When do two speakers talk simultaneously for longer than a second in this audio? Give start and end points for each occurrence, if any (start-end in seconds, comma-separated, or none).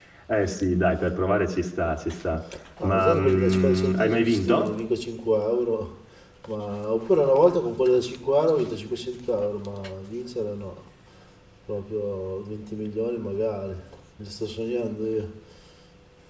2.8-4.7